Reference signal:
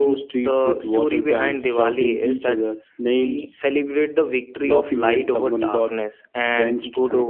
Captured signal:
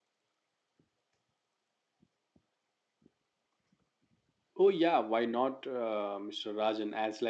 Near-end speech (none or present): present